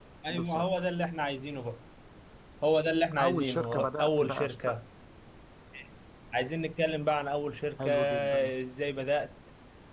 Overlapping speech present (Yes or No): Yes